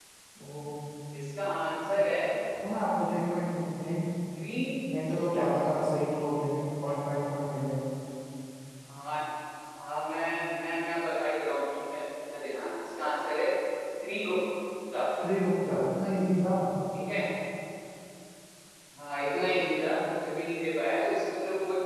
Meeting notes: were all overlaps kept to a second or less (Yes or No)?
Yes